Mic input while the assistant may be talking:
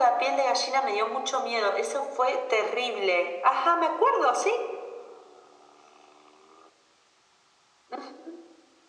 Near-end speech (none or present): none